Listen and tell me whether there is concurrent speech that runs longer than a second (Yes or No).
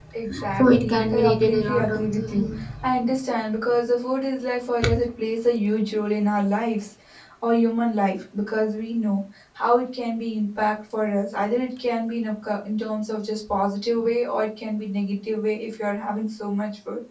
Yes